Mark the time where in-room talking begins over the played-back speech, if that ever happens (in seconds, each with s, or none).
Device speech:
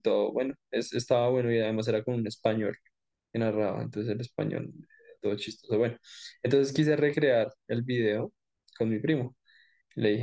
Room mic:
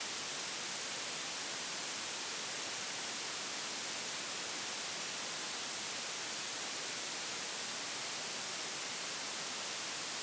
none